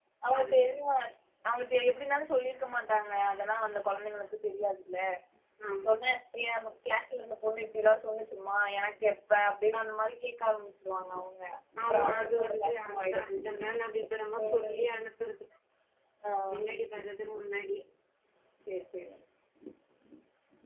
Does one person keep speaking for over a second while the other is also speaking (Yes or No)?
Yes